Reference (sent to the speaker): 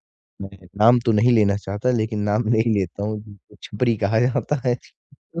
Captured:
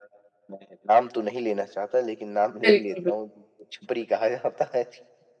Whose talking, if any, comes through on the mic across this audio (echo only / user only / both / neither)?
both